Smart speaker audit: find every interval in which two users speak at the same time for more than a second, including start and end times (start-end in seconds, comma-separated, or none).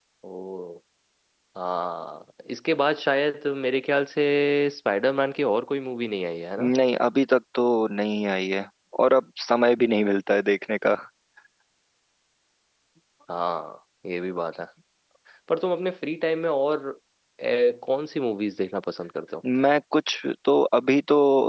none